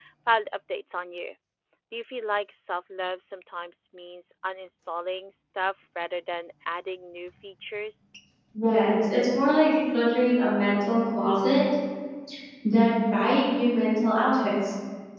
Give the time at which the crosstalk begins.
none

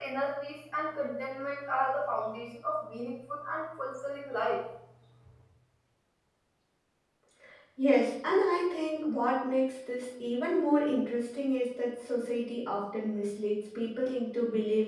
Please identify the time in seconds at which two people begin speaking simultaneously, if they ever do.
none

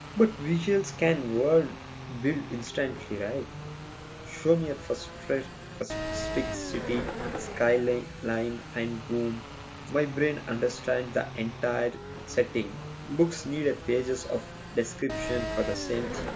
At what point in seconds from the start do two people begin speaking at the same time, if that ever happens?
none

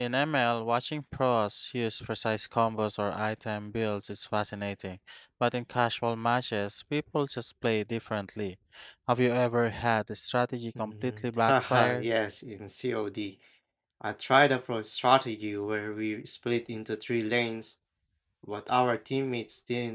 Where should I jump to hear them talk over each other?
11 s

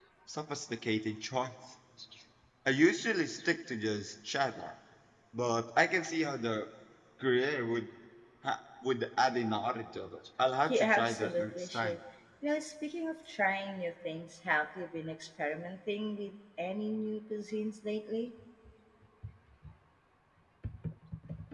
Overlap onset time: 11 s

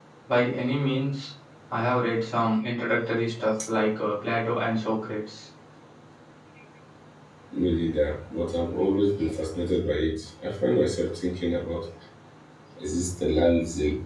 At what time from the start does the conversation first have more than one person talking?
none

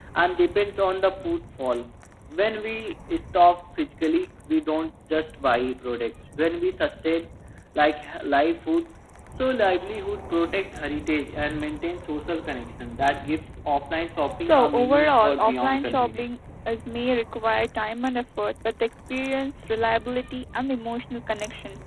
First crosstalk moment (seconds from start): 14 s

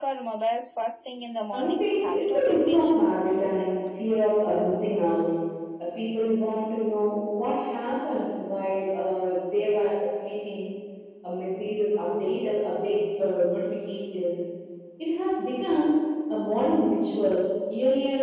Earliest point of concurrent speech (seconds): 2 s

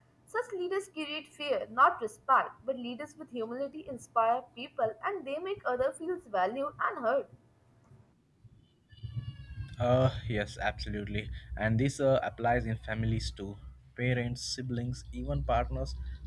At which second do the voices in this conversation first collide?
none

